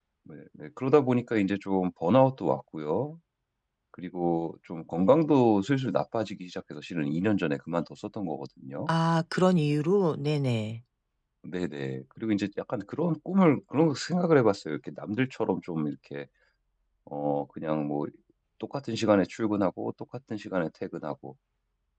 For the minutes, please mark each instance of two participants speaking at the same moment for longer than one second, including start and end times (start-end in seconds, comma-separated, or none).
none